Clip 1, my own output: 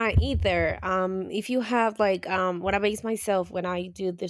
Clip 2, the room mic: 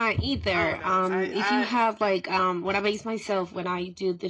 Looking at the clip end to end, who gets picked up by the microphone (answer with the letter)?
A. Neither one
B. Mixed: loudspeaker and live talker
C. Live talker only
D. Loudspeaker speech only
B